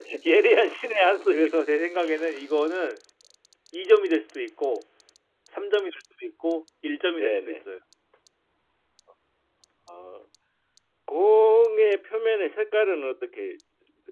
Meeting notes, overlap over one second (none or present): none